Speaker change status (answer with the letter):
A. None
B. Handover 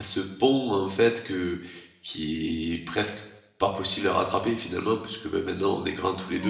A